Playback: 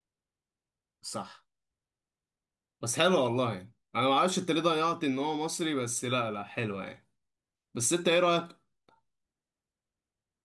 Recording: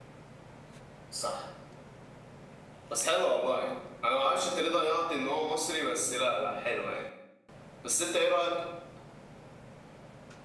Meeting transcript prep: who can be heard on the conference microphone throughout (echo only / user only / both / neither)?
echo only